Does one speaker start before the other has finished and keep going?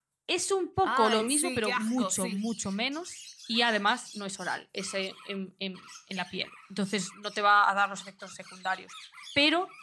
Yes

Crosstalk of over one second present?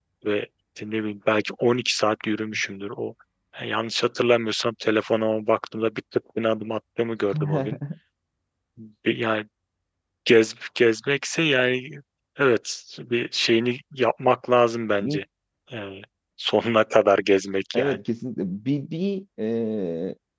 No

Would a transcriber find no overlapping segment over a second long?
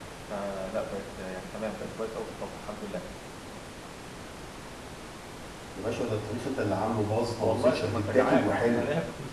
No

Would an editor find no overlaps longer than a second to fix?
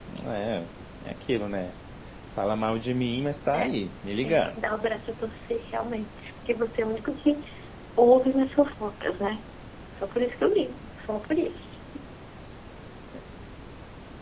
Yes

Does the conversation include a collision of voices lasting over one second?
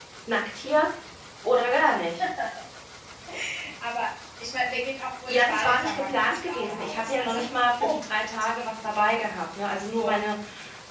Yes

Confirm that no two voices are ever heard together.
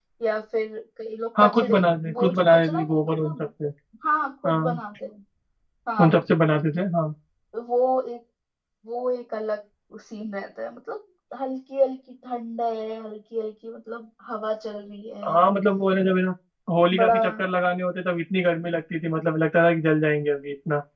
No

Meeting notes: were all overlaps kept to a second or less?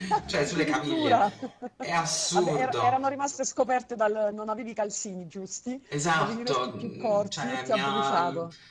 No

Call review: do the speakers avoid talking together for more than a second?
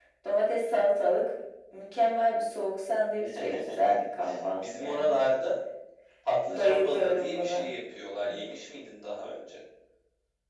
No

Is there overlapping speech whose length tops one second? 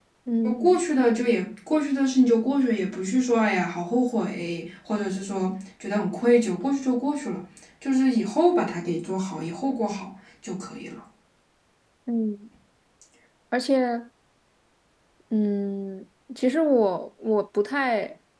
No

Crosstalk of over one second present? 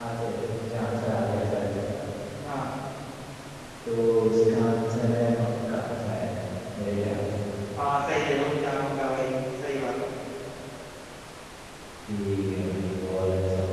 No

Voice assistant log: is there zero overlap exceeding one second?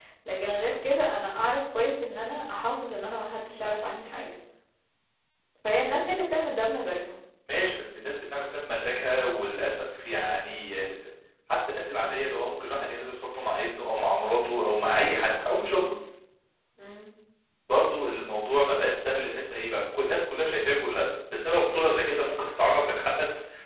Yes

